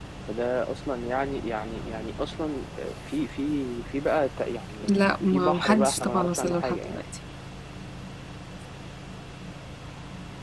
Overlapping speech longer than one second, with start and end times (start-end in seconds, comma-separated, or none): 5.3-7.0